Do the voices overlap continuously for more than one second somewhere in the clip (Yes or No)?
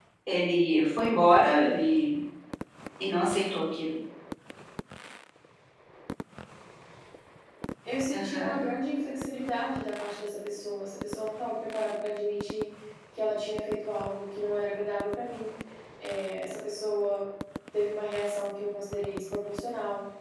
No